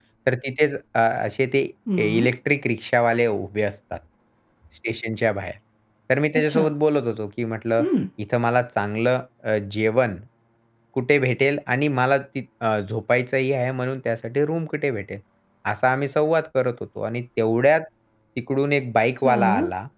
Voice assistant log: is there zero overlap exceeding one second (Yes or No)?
Yes